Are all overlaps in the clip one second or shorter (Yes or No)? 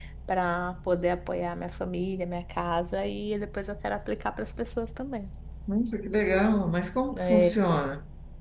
Yes